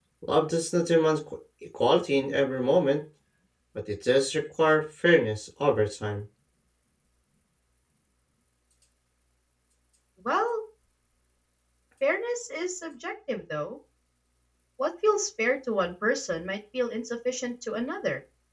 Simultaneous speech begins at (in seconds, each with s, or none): none